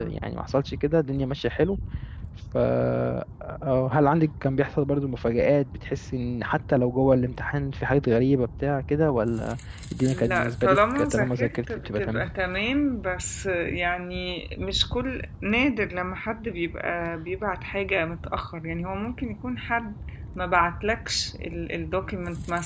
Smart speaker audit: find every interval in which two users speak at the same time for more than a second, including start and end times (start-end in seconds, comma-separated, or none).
10.0-12.3